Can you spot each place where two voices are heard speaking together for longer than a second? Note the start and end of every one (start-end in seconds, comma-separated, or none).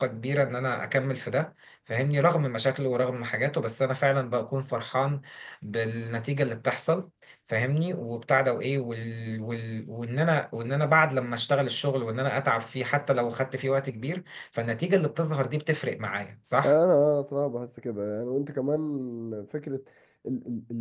none